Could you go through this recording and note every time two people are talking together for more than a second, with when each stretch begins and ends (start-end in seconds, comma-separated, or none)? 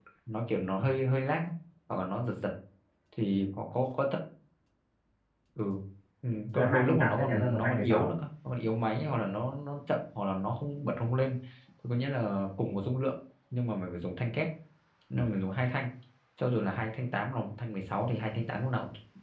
6.5-8.1